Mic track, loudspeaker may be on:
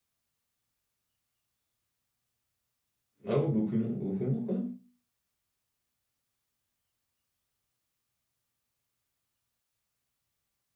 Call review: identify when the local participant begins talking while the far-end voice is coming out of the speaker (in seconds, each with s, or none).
3.2 s